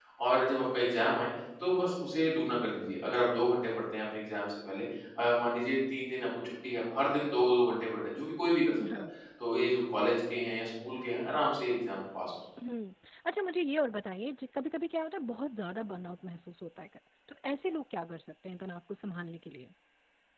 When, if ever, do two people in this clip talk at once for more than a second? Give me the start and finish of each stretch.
none

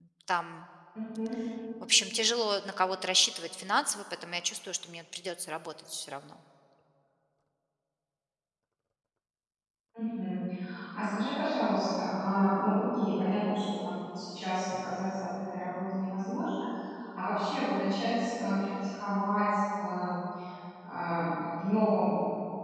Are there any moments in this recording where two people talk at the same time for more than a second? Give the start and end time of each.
none

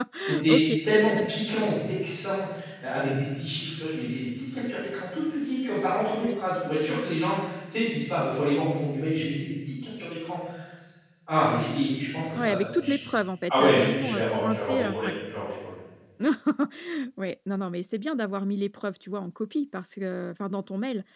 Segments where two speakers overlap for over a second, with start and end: 13.5-15.2

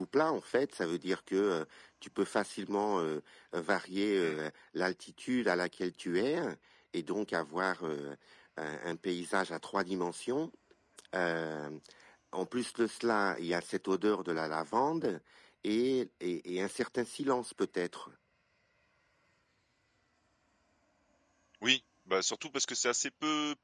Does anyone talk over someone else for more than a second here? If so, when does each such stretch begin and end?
none

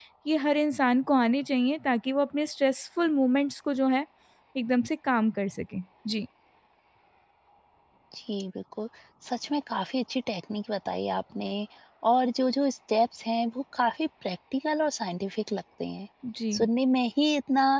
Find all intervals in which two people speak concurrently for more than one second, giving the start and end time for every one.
none

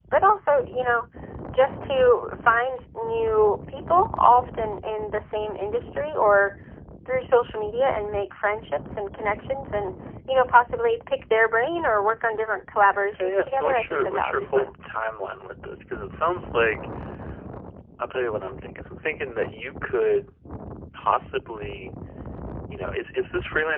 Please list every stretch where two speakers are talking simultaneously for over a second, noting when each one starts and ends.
13.1-14.7

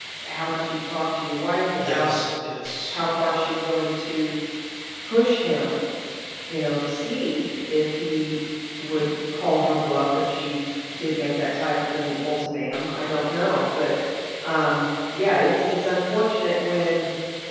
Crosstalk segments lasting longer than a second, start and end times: none

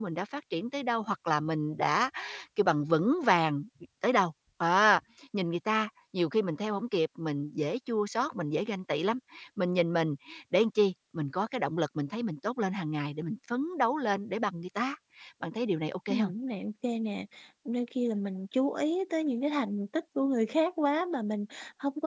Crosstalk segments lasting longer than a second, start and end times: none

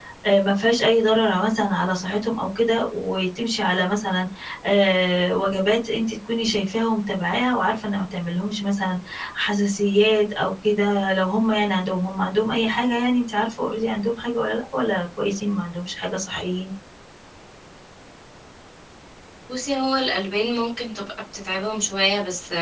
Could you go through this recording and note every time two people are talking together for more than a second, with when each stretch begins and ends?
none

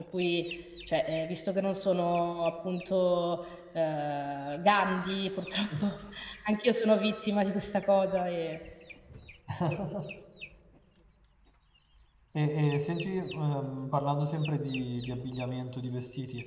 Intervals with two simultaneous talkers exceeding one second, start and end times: none

